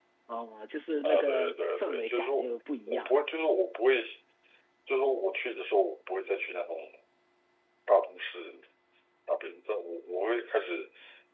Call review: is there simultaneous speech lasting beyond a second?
Yes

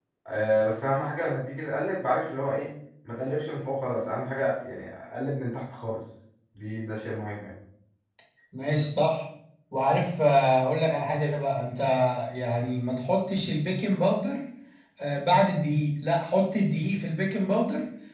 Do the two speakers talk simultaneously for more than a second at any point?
No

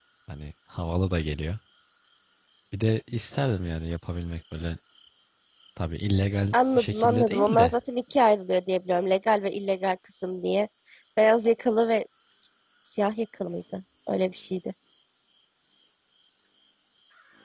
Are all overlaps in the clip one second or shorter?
No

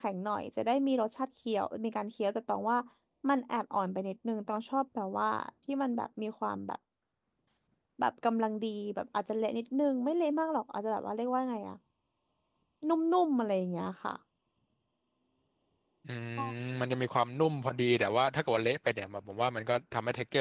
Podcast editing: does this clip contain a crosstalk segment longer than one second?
No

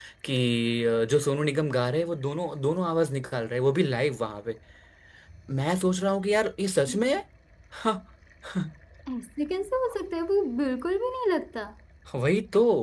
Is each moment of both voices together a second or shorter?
Yes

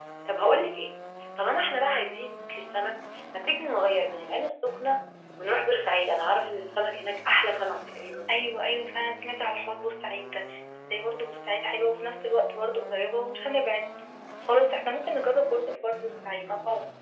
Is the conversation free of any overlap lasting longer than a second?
Yes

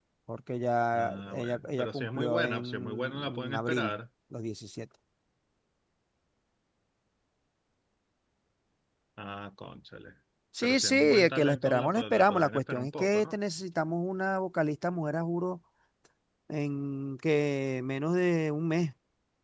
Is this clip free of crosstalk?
No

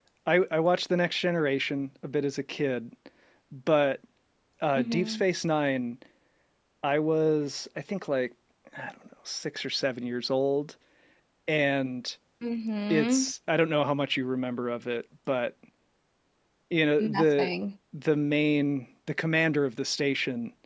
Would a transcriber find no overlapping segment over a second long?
Yes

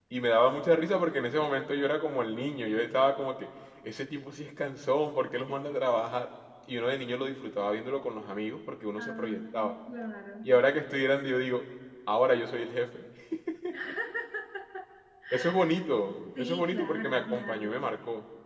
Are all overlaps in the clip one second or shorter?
No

